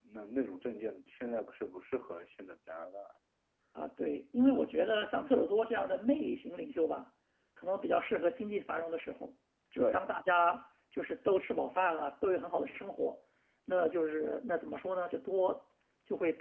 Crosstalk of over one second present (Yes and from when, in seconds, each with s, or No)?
No